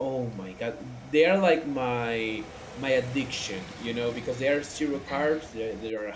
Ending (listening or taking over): listening